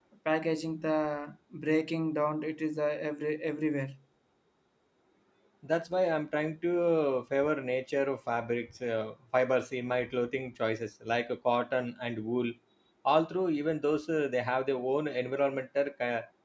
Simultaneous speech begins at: none

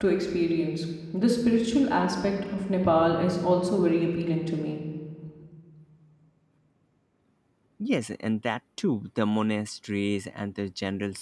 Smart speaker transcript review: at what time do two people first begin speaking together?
none

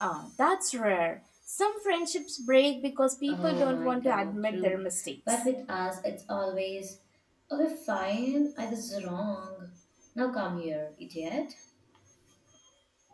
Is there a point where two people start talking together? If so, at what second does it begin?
3 s

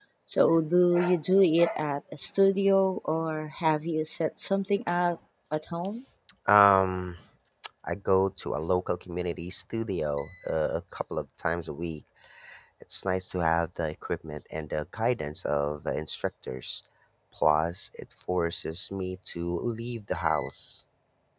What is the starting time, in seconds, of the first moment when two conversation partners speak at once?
none

